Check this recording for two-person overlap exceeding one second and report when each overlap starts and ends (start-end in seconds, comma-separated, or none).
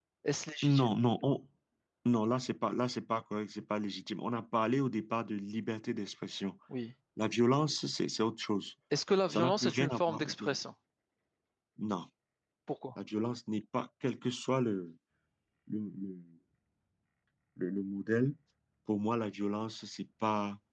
9.3-10.5